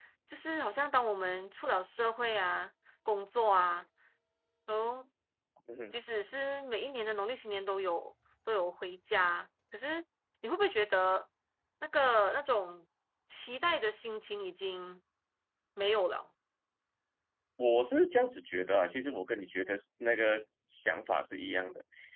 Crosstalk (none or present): none